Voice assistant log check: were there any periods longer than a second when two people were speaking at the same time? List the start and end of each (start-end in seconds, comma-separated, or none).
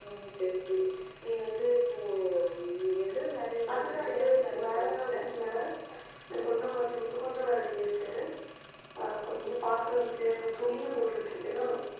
3.7-5.2